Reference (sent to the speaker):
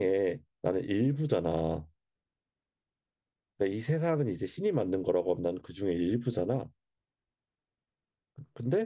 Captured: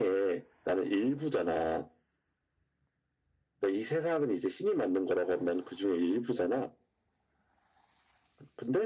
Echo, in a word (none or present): present